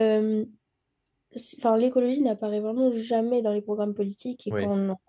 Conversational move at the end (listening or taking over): listening